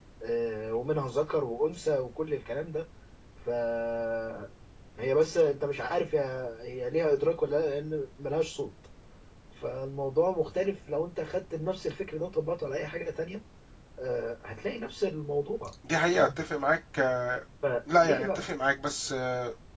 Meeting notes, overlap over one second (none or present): none